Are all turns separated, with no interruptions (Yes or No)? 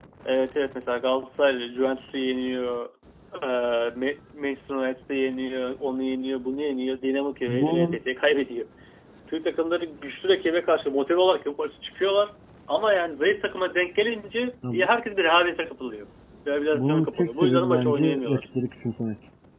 No